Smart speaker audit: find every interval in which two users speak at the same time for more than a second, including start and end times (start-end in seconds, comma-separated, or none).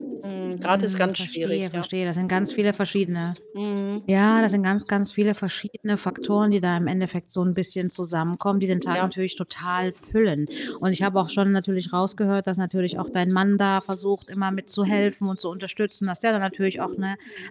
0.5-1.9